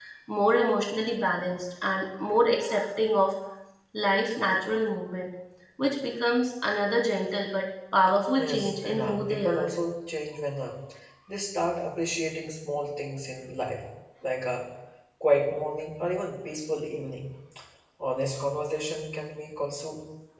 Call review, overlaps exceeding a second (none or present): present